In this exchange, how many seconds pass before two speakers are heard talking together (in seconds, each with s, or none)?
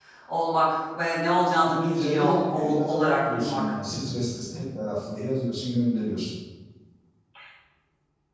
1.7 s